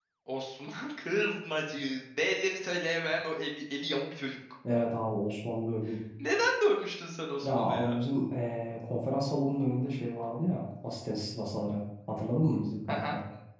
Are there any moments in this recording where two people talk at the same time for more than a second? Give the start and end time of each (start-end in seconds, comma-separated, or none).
none